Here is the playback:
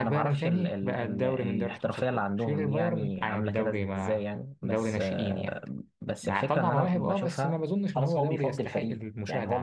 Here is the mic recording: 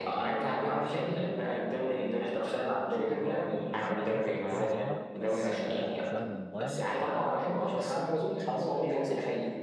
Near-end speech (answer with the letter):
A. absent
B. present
B